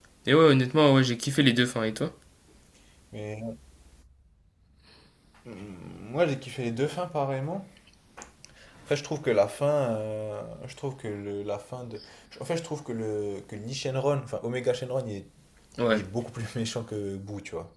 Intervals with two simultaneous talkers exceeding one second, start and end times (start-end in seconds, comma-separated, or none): none